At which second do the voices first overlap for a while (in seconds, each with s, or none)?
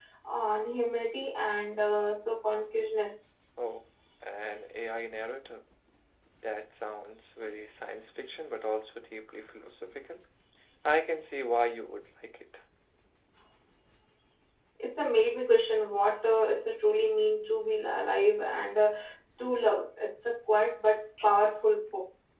none